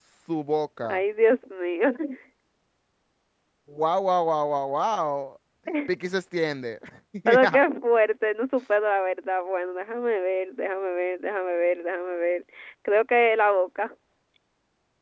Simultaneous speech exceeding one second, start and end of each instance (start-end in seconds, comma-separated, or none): none